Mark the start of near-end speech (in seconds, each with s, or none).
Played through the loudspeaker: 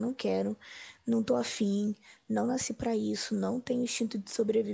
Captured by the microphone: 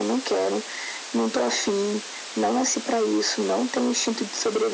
none